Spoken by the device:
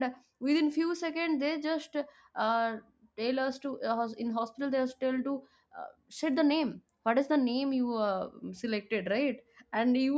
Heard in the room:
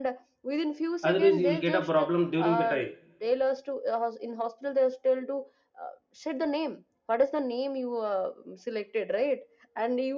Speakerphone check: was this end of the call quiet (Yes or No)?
No